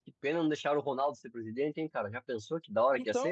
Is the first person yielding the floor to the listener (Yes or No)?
Yes